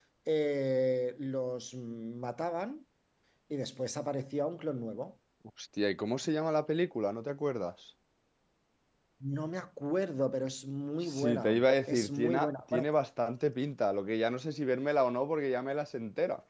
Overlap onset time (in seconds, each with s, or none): 11.0 s